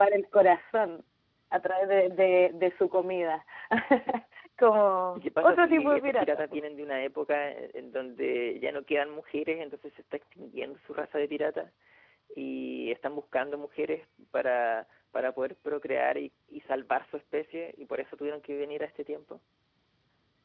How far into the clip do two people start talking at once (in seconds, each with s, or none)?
5.2 s